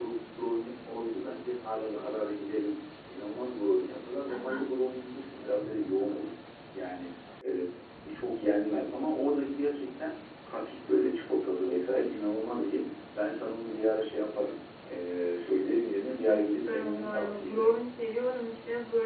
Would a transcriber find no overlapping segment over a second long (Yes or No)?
No